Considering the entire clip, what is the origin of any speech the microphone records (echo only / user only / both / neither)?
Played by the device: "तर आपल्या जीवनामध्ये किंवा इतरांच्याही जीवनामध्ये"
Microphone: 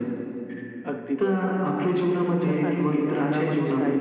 both